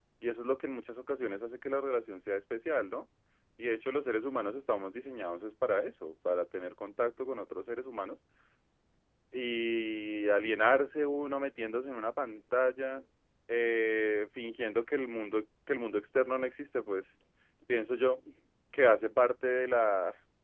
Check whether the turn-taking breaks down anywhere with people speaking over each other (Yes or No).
No